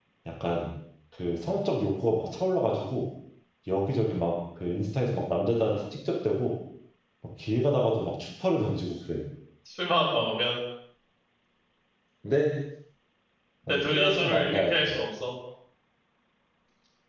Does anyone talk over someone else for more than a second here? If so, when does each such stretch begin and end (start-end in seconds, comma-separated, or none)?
13.7-14.9